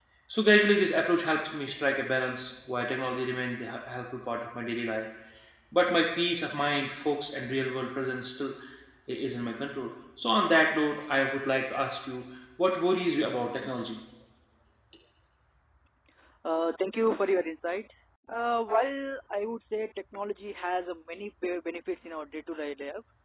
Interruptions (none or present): none